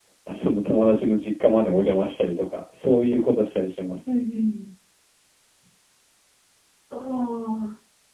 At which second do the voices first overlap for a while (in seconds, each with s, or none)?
none